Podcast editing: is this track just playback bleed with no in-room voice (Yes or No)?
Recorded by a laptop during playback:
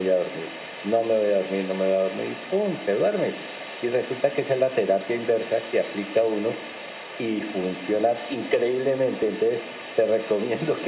Yes